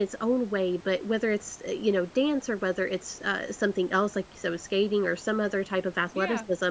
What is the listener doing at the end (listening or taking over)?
listening